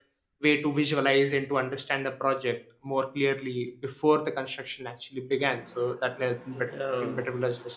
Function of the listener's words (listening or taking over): listening